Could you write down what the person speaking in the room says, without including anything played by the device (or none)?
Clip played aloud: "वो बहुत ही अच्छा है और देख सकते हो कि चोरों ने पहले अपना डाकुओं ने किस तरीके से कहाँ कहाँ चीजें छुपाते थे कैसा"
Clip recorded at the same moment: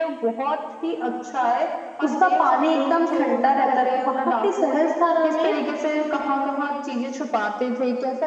उसका पानी एकदम ठंडा रहता है वहां पे सहस्त्रधारा में